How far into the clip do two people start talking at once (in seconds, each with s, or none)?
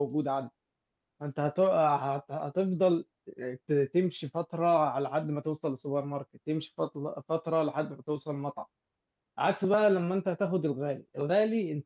none